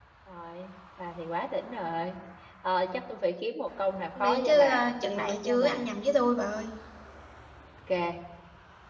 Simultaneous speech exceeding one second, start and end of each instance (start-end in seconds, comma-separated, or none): 4.2-5.8